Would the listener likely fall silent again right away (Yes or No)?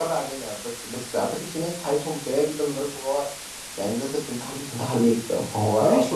No